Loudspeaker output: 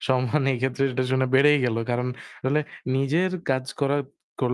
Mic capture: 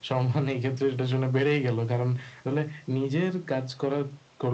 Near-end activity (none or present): none